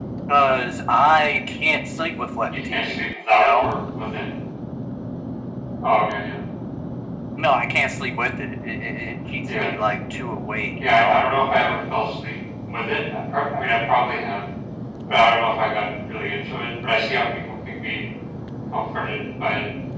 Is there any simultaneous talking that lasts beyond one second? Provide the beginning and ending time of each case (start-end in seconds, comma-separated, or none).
2.5-3.7